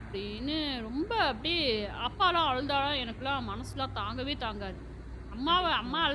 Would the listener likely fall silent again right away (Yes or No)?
Yes